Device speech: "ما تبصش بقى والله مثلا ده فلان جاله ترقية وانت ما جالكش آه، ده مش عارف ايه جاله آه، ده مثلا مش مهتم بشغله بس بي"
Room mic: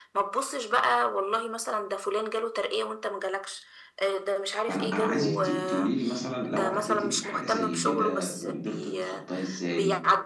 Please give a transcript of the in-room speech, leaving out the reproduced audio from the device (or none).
فانا انا عايزك ت- تقولي لي مثلا لو عديتي بحاجه زي كده وقدرت تتخطاها ازاي